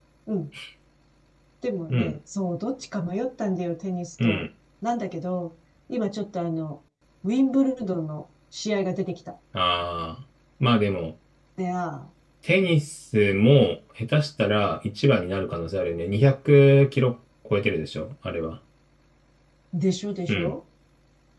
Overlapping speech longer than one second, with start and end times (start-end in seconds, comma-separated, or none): none